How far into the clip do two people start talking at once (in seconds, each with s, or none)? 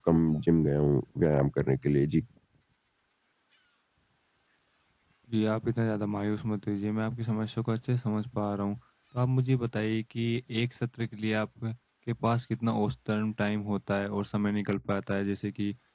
none